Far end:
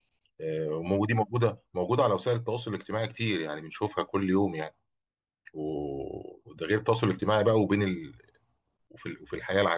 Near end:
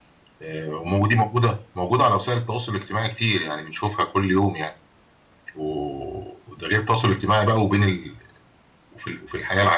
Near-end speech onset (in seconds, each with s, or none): none